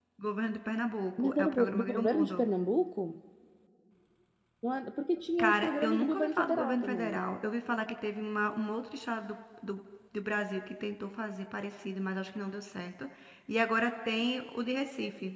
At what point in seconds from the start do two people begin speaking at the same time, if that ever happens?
1.2 s

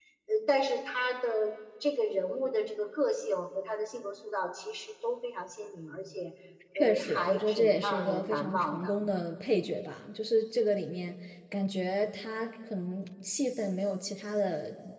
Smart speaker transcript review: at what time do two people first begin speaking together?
6.8 s

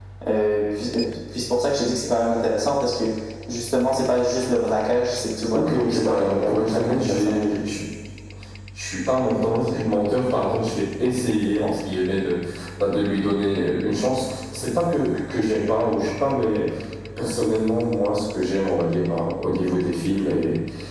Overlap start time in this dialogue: 5.5 s

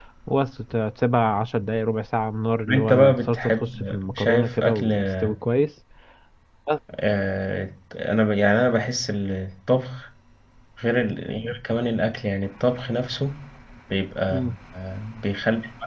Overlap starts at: 2.7 s

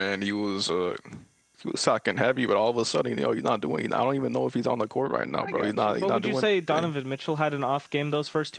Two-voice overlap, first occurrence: 5.4 s

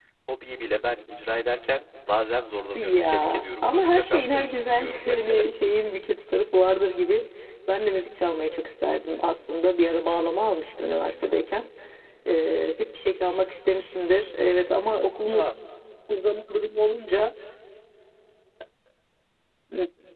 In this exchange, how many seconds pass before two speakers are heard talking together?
2.7 s

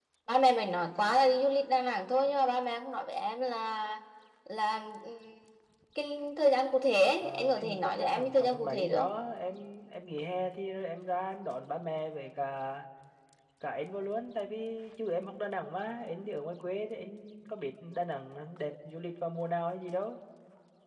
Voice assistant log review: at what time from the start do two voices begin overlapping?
7.2 s

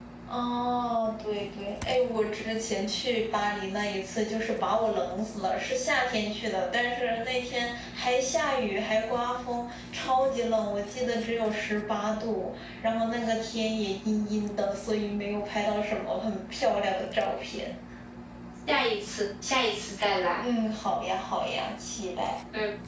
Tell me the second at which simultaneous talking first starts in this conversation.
none

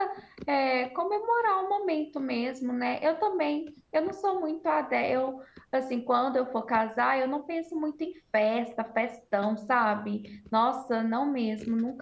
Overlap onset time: none

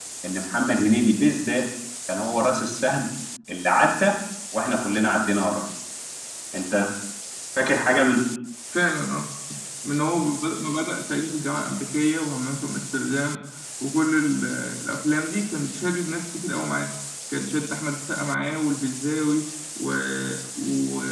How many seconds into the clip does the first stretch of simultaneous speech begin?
none

